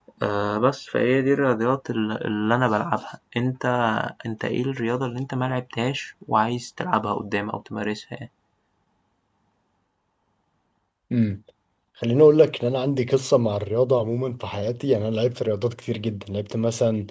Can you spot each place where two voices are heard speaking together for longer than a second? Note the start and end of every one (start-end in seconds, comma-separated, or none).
none